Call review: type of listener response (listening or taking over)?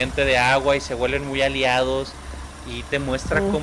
listening